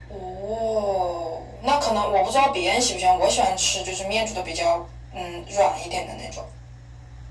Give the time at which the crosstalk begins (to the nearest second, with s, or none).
none